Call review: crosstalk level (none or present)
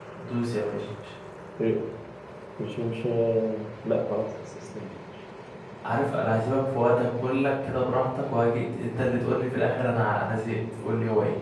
none